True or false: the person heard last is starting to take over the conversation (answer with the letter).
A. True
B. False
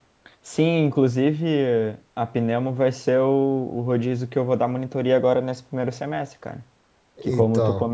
B